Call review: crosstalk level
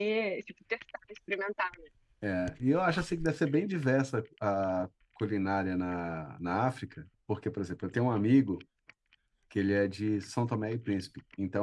none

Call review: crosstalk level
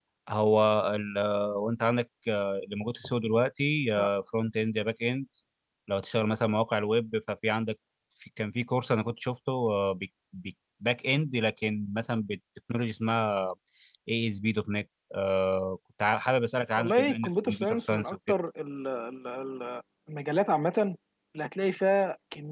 present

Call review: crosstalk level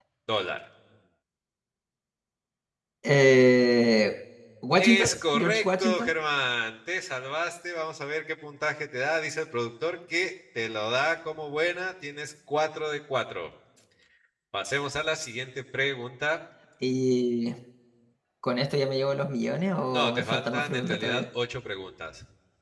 present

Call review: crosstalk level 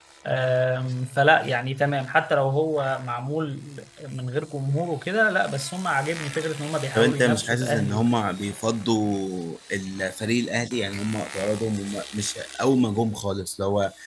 present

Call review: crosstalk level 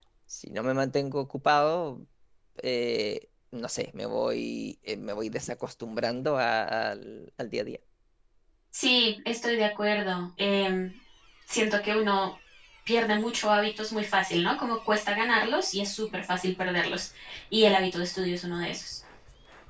none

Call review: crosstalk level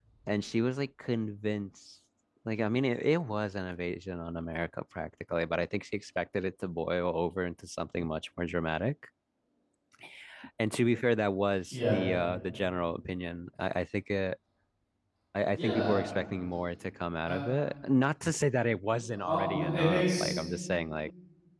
present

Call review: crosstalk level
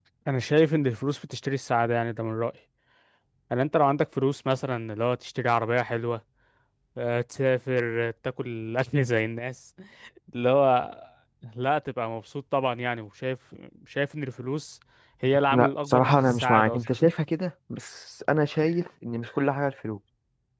present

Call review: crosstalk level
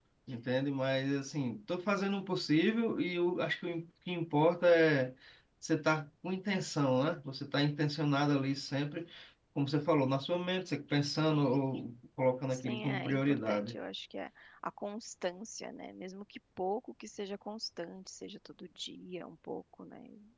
present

